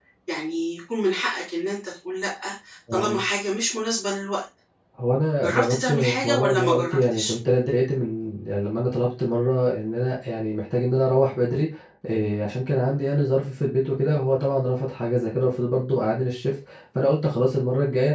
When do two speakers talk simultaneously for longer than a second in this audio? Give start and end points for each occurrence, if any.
5.4-7.3

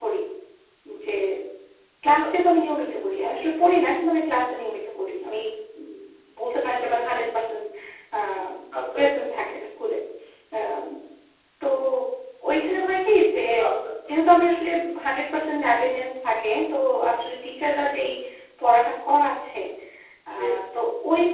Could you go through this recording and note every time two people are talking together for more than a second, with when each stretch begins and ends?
none

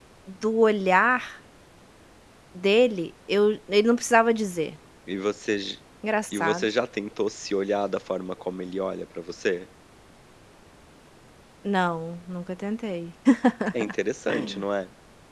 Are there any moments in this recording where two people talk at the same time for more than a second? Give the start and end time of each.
none

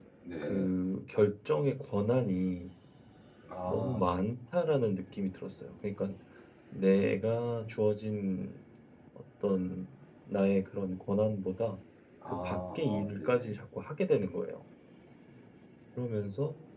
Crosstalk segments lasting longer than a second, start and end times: 12.4-13.6

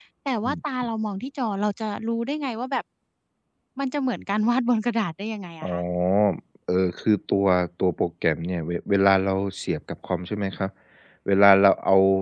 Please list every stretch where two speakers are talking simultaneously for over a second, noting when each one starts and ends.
none

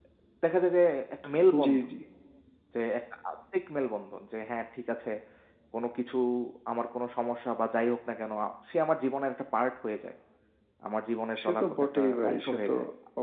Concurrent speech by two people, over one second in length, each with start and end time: 11.4-12.7

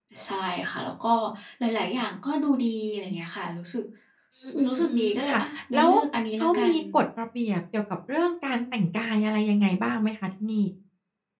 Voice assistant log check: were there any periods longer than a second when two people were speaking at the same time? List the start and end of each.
4.7-5.9

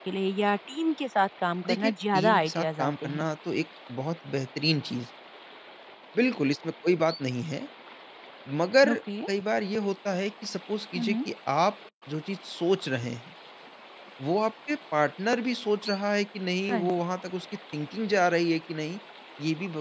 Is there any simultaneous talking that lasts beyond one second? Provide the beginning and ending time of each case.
1.7-3.2

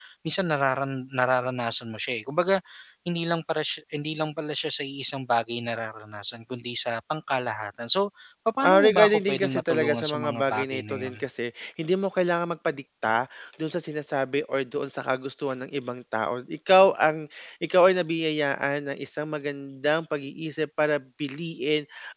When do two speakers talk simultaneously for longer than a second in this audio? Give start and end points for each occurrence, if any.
8.6-11.2

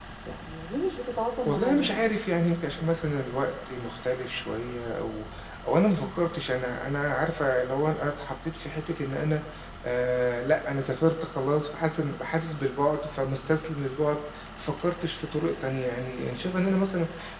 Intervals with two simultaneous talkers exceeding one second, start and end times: none

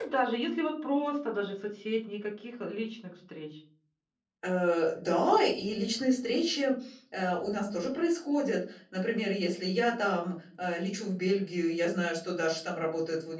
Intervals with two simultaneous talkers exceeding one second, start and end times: none

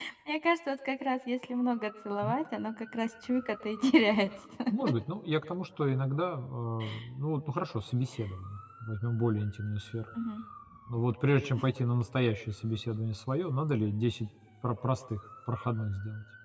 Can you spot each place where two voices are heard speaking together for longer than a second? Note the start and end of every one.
none

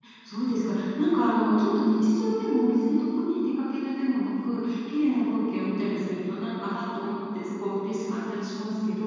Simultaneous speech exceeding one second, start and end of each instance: none

